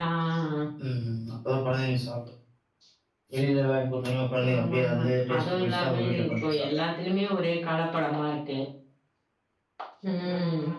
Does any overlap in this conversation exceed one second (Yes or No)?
Yes